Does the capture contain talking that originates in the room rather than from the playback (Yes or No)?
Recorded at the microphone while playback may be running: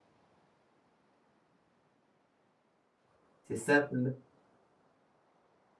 Yes